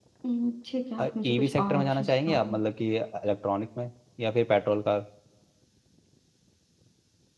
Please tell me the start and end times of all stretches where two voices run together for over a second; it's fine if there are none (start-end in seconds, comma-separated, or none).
1.2-2.5